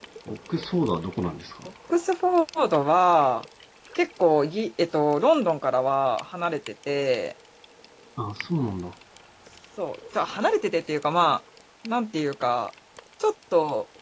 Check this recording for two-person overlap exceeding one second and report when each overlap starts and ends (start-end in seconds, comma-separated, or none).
none